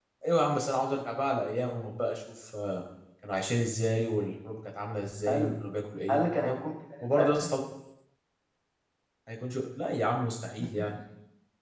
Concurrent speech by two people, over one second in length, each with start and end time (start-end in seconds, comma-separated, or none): none